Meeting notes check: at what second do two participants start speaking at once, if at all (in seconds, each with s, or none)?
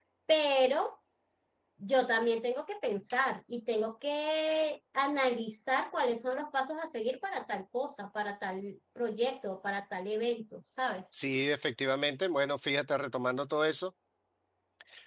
none